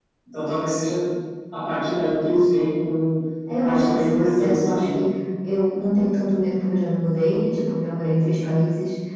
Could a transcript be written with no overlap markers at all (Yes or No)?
No